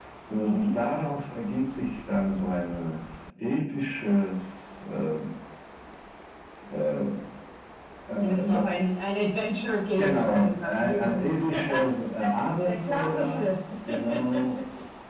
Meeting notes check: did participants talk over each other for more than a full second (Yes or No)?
Yes